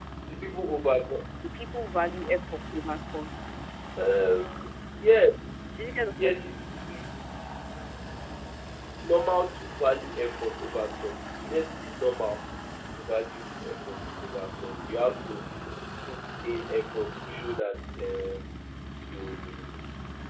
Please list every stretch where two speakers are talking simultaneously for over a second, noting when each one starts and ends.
none

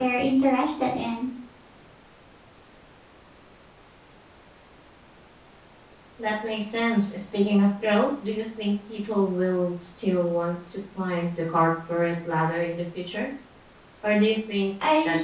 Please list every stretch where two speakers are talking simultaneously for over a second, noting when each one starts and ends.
none

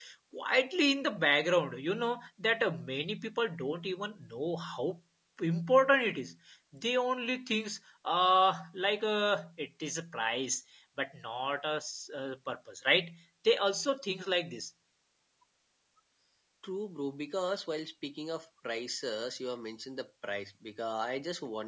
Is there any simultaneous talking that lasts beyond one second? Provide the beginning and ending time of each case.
none

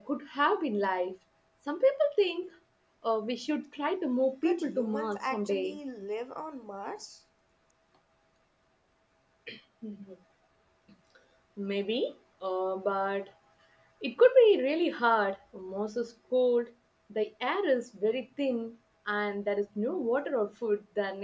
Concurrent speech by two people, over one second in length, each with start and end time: 4.4-5.8

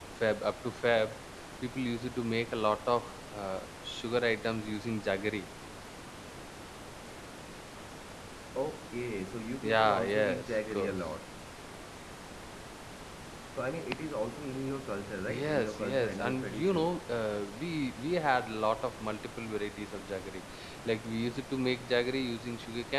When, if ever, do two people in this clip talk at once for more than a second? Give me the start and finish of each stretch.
9.6-11.0, 15.3-17.0

